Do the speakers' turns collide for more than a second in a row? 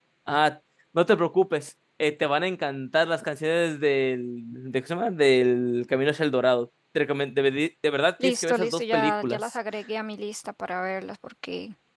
Yes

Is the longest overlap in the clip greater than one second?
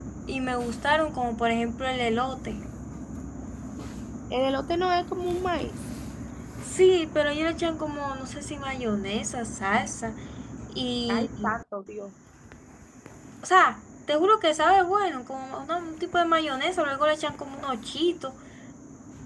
No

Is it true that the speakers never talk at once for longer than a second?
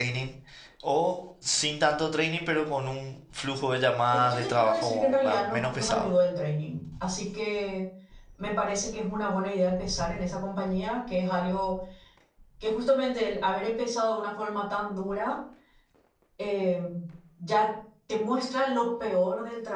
No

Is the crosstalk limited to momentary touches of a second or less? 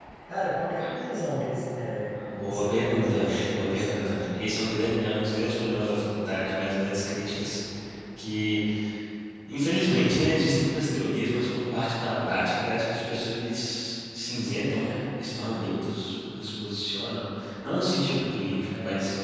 No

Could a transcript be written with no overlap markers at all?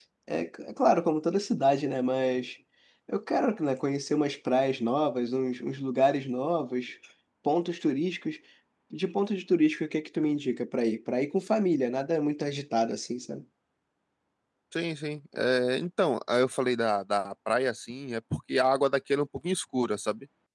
Yes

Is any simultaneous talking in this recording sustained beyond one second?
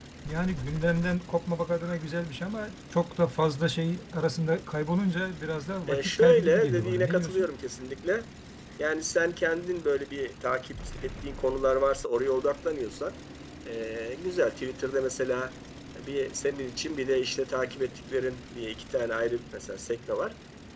Yes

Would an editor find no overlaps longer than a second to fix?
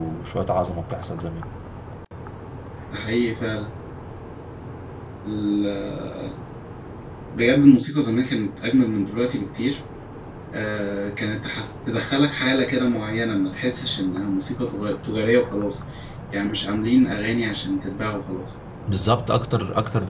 Yes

